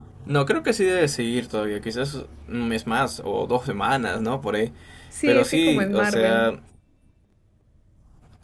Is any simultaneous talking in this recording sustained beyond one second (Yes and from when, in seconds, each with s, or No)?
Yes, from 5.2 s